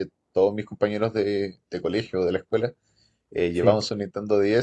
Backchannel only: Yes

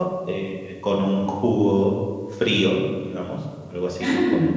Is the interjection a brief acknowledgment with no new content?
Yes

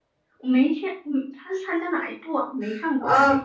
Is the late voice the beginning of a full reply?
Yes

